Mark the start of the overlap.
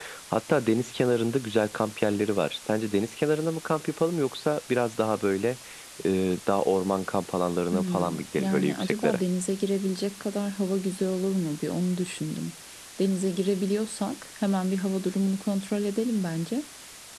8 s

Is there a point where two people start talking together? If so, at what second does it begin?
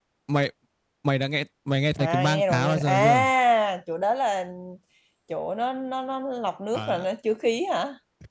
2 s

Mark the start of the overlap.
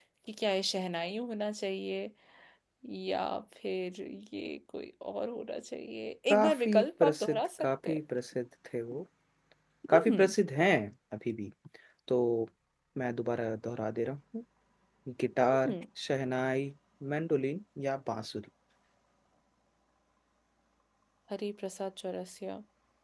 6 s

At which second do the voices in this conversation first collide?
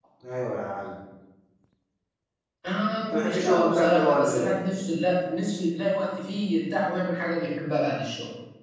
3 s

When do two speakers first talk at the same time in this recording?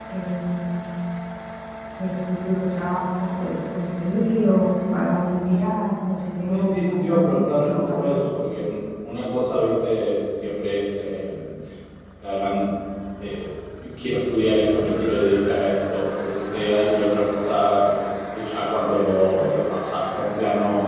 6 s

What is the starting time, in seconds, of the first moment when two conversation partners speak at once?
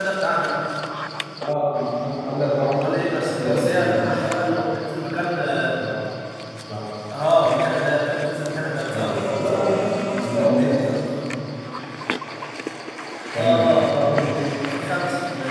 3 s

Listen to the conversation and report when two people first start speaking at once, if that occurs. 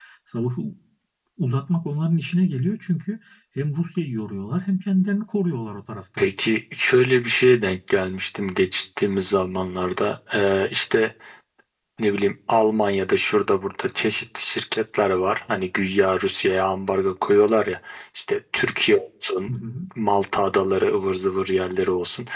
none

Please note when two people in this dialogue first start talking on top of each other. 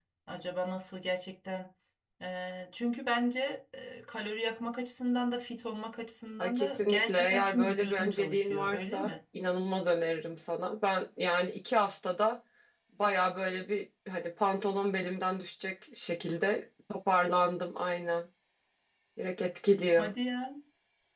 6 s

